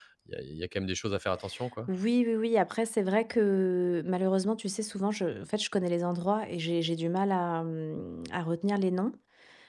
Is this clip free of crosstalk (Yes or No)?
Yes